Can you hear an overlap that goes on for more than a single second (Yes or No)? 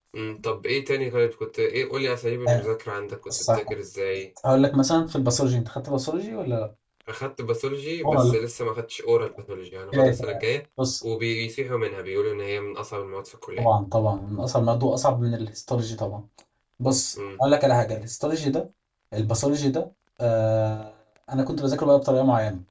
No